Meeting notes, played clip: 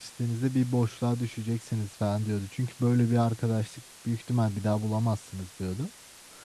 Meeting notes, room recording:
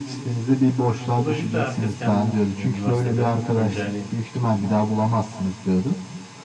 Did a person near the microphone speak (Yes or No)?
Yes